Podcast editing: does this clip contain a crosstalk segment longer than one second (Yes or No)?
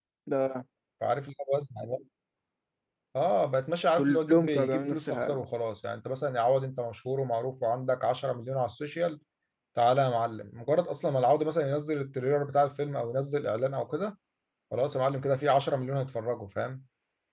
Yes